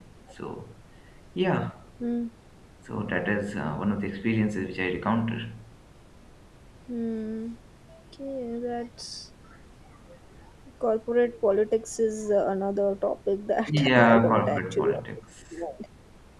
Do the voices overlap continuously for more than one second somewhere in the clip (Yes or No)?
Yes